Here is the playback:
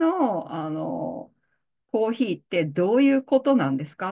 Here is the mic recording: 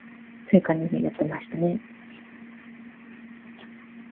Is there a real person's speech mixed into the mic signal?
Yes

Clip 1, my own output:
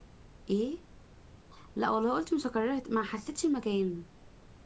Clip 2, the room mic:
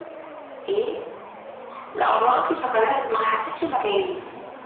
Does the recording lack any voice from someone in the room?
Yes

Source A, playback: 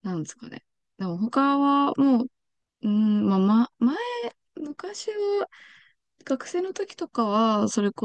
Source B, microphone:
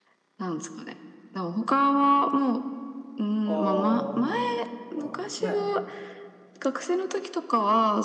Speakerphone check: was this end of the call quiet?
No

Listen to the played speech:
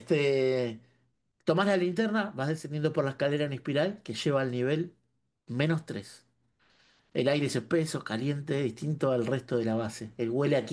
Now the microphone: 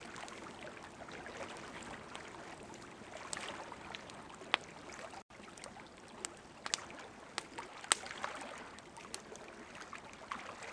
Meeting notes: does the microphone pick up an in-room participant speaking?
No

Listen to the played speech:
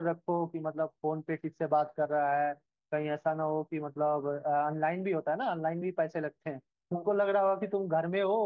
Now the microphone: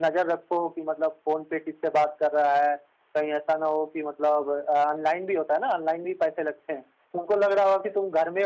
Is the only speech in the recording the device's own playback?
Yes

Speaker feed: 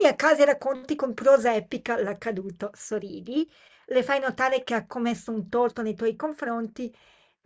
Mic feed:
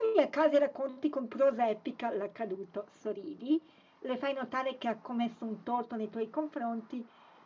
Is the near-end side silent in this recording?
Yes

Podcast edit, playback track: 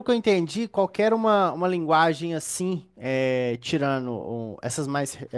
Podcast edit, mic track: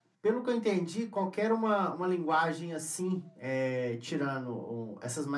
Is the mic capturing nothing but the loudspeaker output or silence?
Yes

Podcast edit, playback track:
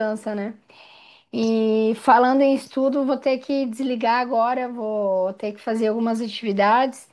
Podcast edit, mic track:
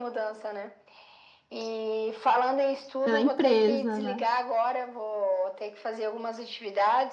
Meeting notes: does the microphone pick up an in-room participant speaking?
Yes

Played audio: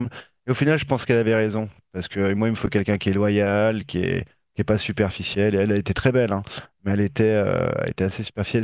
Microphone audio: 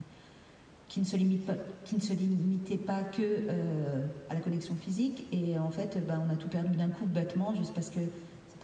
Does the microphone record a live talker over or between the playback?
Yes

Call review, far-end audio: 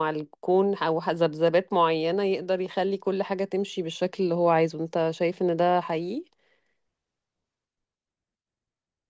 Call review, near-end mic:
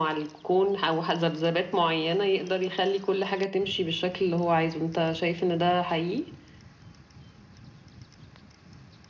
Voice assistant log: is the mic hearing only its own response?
Yes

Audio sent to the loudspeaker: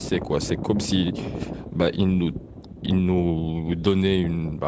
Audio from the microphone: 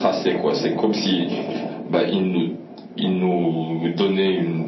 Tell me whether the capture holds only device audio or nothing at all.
Yes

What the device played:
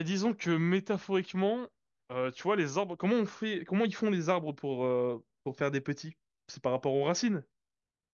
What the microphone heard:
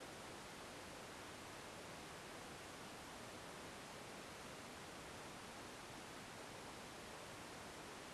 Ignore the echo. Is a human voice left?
No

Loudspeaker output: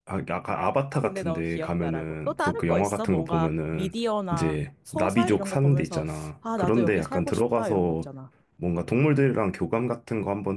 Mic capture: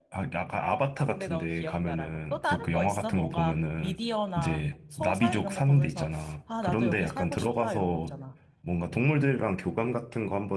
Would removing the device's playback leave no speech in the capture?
Yes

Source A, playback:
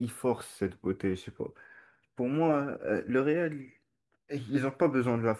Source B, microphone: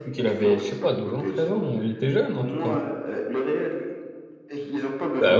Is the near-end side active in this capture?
Yes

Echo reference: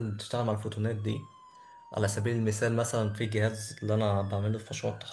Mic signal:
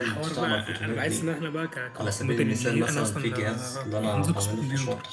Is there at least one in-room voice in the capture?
Yes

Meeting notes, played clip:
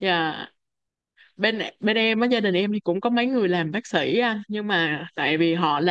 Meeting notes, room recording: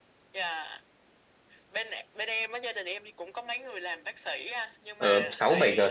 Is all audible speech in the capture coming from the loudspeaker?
No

